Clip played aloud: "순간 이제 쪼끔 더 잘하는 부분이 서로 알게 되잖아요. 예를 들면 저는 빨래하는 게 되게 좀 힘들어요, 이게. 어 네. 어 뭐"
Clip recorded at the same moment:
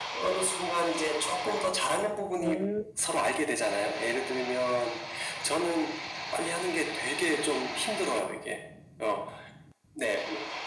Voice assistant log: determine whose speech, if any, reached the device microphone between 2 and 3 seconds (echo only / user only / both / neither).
both